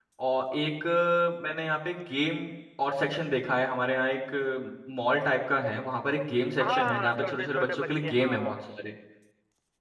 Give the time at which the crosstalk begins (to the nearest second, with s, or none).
7 s